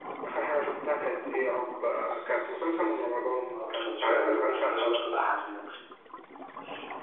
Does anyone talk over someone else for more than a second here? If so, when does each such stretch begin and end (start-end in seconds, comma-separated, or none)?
3.5-5.0